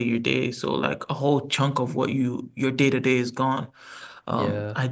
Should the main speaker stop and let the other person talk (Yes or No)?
No